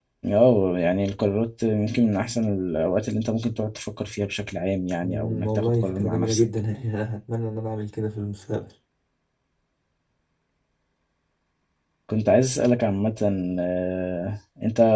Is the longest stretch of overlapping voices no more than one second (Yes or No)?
No